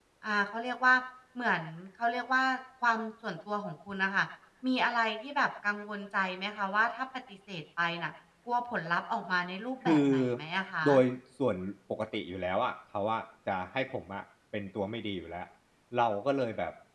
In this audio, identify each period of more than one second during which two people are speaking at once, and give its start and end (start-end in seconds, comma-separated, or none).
none